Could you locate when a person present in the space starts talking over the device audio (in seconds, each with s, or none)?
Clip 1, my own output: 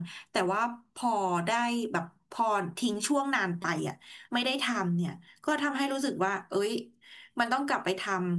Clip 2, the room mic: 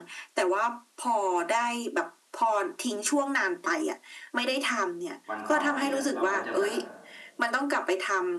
5.3 s